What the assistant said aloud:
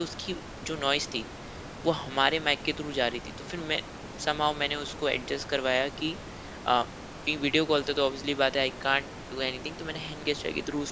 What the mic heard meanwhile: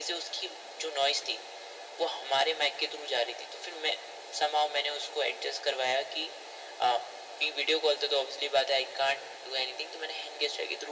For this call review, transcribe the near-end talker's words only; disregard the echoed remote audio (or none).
none